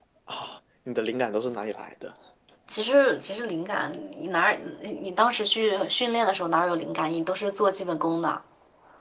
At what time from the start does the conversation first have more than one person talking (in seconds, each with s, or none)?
none